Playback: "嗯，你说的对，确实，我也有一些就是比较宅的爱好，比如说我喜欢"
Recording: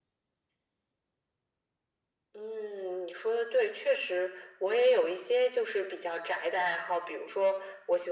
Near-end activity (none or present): none